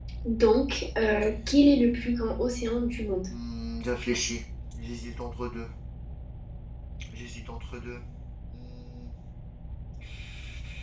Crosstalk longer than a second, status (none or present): none